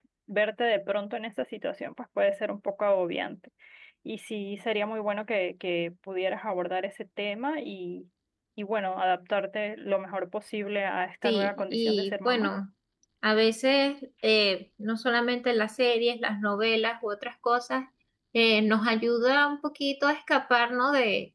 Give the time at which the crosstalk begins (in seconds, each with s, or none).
11.2 s